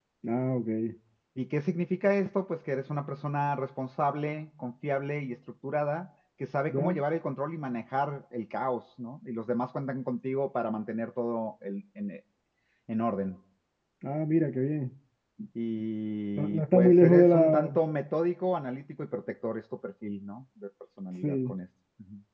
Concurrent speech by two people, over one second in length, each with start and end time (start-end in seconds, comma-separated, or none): 16.4-17.6